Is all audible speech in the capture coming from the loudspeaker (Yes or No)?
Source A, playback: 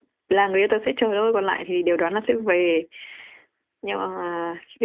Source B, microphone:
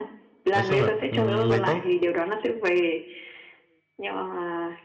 No